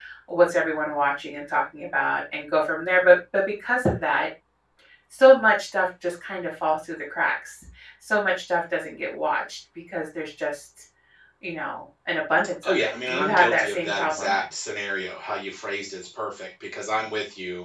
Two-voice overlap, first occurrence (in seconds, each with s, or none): 12.6 s